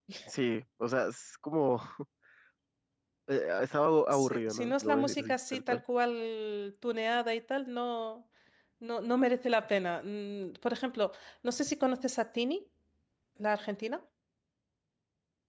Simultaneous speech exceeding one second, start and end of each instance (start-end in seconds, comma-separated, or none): 4.1-5.8